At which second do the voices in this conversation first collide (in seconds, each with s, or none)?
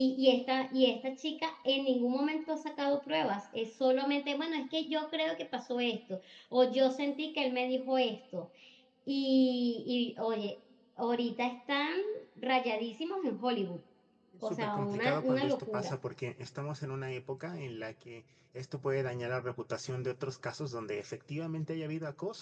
14.4 s